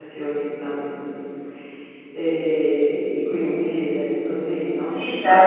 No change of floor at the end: No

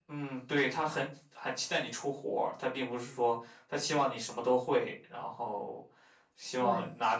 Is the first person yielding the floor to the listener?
No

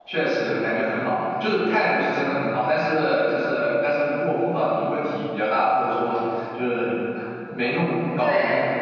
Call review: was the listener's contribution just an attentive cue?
Yes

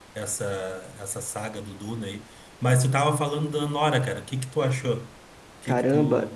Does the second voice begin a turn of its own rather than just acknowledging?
Yes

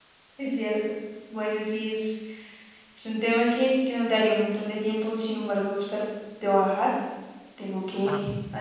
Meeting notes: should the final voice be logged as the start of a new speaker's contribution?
No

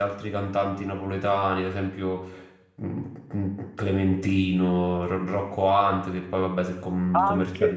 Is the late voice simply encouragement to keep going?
No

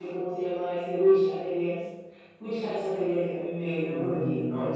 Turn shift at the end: Yes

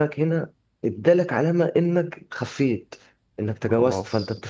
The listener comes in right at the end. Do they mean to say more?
No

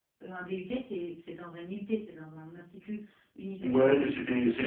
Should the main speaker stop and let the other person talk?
Yes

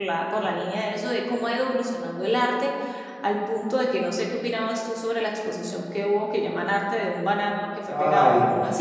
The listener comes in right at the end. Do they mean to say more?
Yes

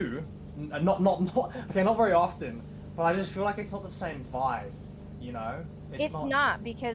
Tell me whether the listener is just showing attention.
No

